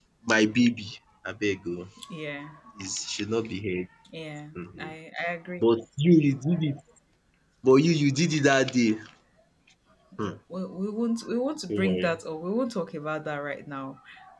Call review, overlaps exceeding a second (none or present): none